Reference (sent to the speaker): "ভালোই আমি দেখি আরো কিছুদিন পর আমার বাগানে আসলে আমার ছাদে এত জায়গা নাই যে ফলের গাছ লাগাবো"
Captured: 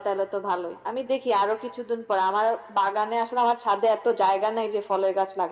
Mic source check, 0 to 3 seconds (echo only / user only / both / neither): echo only